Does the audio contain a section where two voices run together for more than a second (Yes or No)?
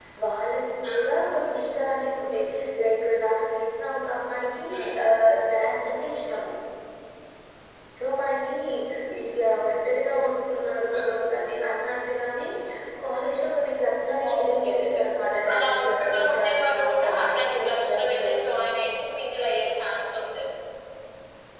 Yes